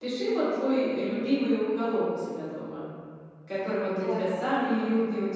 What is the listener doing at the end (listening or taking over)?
listening